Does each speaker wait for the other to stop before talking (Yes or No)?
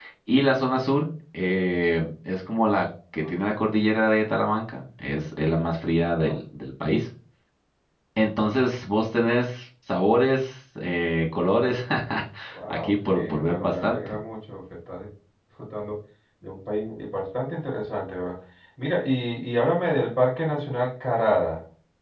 No